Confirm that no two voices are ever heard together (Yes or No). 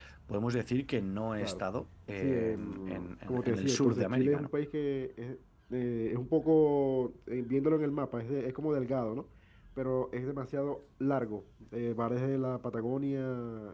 No